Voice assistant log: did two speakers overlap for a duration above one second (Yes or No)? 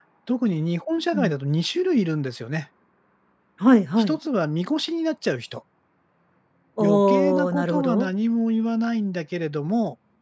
Yes